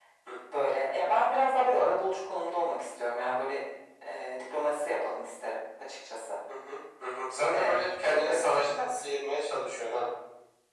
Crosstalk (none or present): present